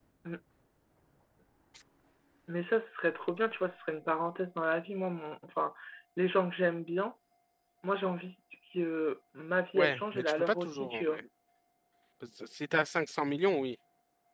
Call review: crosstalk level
present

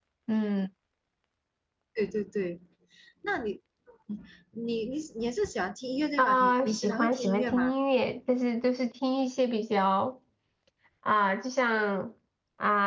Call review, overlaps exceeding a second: present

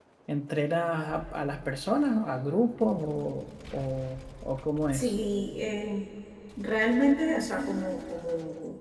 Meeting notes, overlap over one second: none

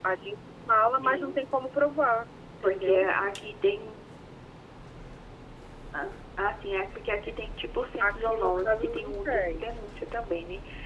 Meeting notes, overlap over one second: present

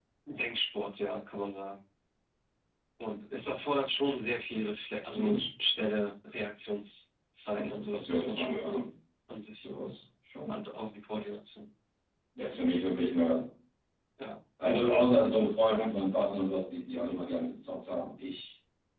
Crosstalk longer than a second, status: present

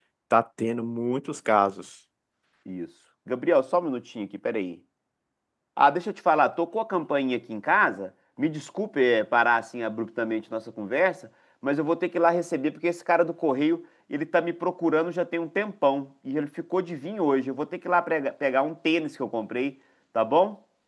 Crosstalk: none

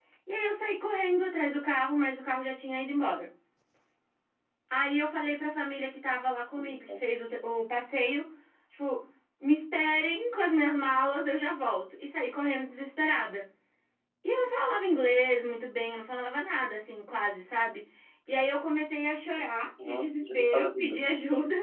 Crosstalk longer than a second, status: present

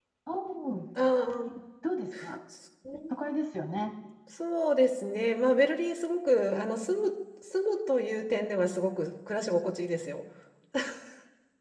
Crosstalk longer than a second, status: none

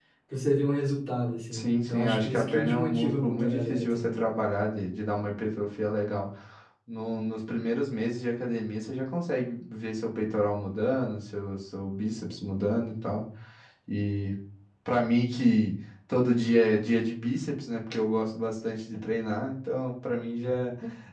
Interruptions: present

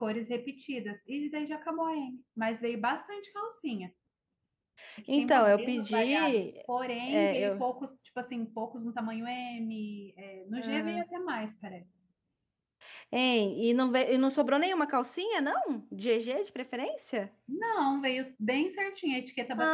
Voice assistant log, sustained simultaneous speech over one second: present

